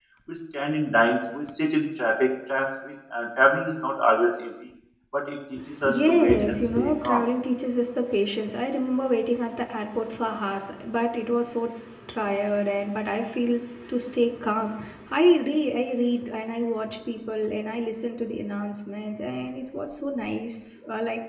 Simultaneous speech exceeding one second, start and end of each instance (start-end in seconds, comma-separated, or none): 5.8-7.3